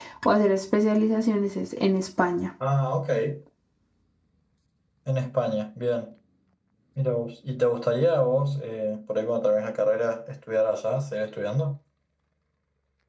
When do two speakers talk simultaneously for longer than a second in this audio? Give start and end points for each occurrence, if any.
none

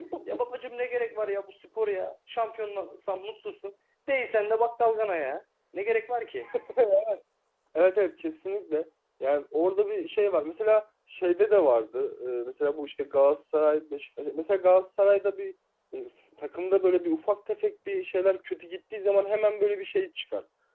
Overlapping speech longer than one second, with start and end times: none

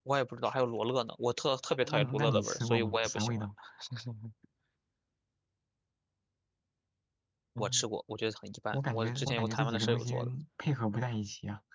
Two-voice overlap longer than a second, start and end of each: 1.8-3.5, 8.7-10.1

